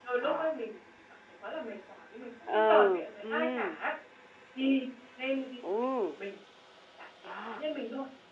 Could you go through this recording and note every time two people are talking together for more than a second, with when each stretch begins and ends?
2.5-3.8

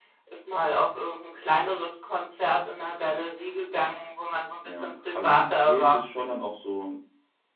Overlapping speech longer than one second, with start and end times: 4.6-6.0

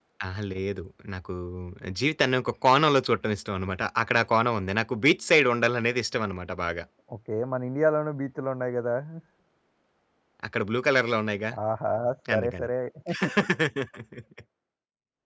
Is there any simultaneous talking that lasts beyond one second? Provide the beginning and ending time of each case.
none

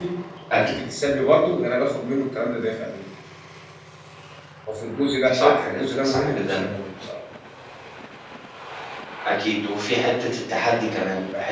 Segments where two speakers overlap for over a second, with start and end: 5.3-6.6

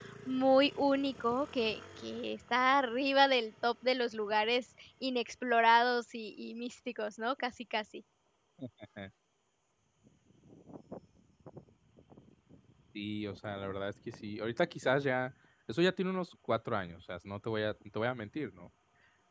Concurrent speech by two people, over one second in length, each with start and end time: none

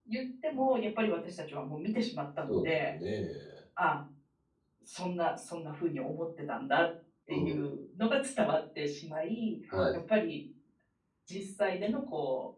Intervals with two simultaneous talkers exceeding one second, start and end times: none

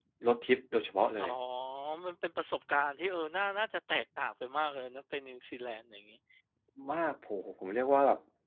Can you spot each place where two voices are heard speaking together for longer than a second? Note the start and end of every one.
none

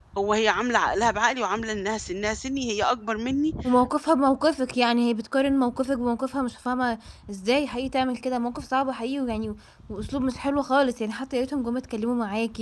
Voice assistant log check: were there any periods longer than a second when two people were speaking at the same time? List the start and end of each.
none

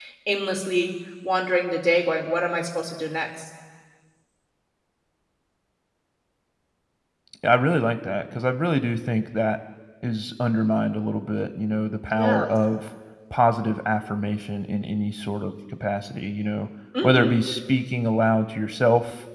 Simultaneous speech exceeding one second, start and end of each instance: none

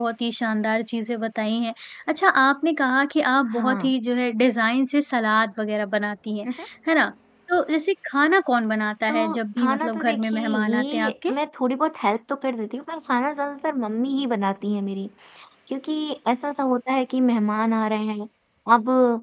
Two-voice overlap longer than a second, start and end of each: 9.1-11.3

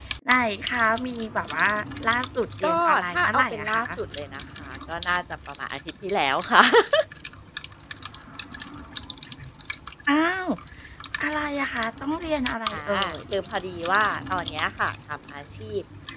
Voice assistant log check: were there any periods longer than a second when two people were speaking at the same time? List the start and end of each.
2.6-3.9

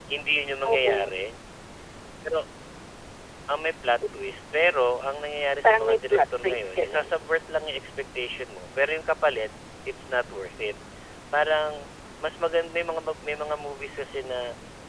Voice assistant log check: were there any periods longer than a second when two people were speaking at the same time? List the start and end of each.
5.6-7.2

